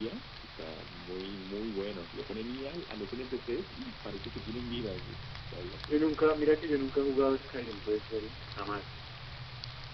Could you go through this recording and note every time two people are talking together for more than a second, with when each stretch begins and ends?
none

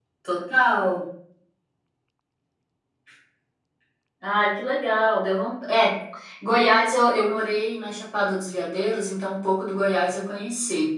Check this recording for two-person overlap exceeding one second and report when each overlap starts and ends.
none

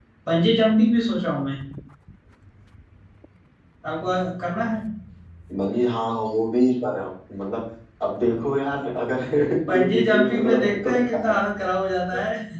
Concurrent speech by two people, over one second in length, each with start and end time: 9.7-11.3

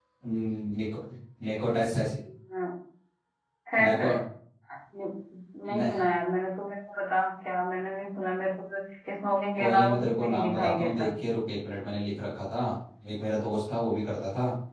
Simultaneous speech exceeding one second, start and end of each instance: 9.6-11.1

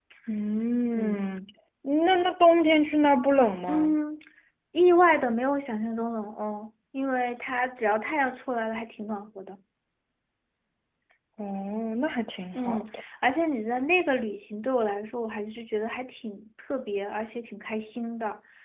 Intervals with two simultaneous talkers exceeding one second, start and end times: none

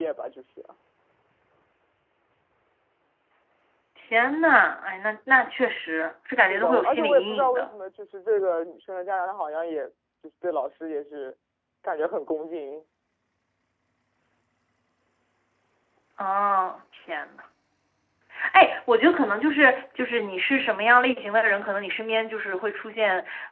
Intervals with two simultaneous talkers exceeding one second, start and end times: 6.4-7.7

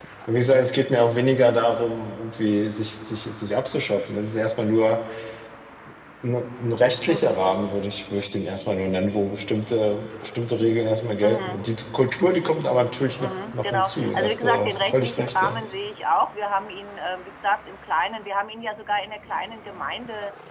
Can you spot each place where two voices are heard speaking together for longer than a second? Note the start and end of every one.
13.2-15.6

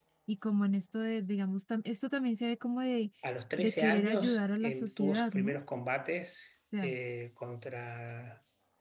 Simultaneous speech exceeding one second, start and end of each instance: 3.6-5.5

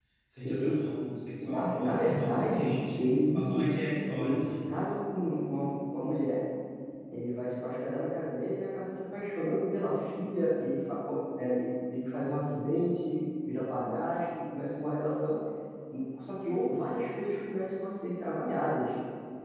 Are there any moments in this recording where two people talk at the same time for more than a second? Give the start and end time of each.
1.4-3.8

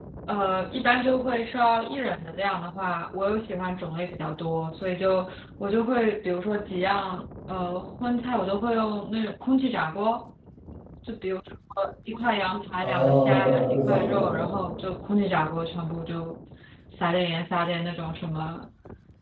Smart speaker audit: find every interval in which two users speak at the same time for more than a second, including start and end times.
12.8-14.4

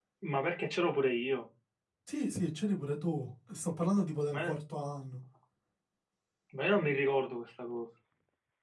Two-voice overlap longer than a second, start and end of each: none

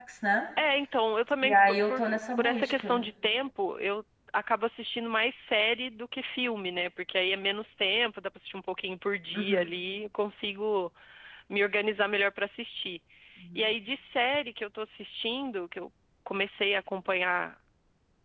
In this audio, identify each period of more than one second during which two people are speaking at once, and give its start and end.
1.4-3.0

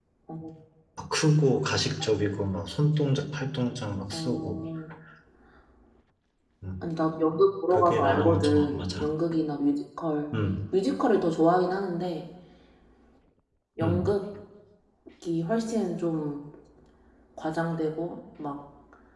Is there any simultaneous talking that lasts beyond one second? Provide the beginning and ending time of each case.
7.7-9.1

